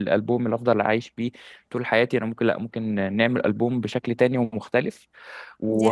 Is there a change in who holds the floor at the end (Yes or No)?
No